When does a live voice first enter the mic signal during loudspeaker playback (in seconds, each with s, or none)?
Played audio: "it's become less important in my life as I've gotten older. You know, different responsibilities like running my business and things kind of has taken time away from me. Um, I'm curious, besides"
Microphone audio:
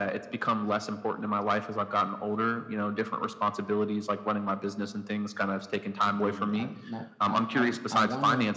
6.0 s